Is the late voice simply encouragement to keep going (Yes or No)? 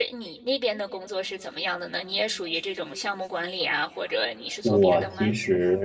No